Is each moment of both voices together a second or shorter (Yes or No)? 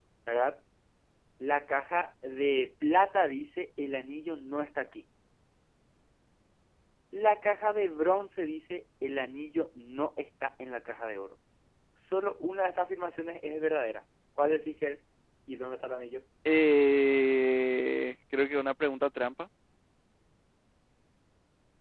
Yes